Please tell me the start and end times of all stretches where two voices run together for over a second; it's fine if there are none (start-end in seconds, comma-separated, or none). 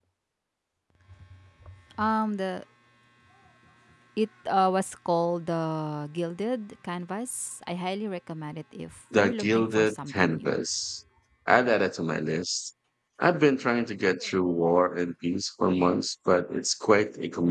9.2-10.5